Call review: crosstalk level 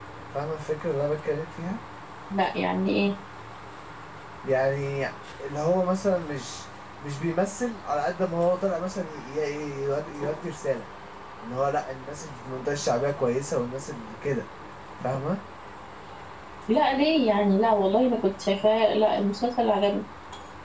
none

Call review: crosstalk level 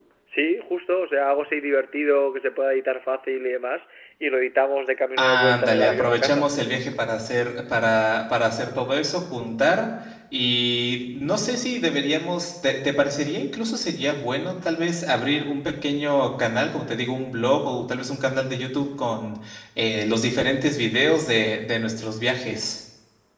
present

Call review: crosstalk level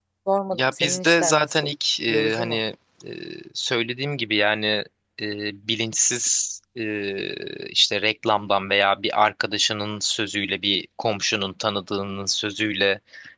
present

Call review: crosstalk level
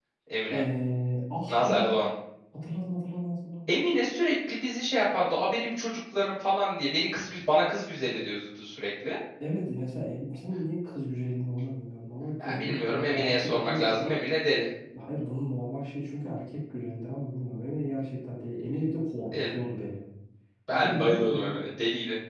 present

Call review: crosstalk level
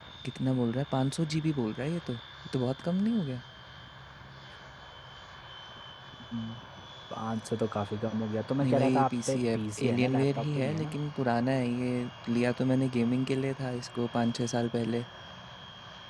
present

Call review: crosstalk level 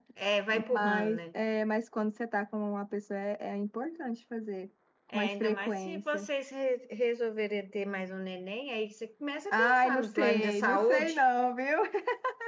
present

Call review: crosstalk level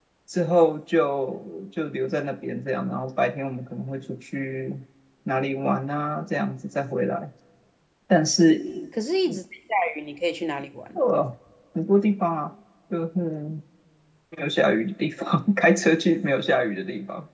none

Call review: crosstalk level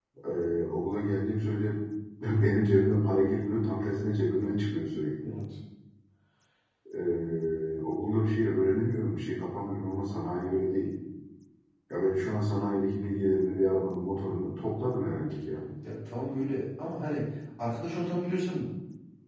none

